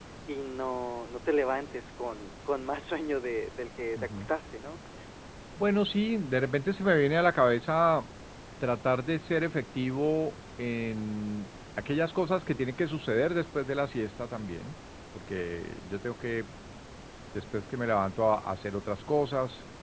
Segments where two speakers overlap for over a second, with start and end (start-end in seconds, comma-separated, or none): none